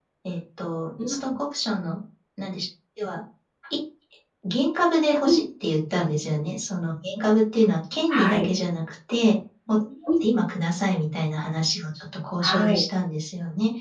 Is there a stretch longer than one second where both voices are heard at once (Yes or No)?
No